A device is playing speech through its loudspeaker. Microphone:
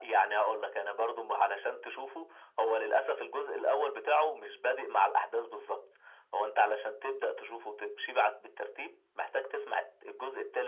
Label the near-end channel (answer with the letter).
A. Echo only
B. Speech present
A